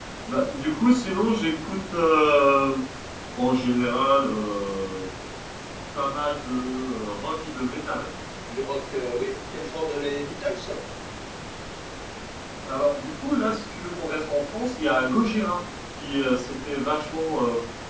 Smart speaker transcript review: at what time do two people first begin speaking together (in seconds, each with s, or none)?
none